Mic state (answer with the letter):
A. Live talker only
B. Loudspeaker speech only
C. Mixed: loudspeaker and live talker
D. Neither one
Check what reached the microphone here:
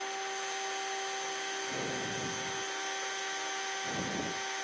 D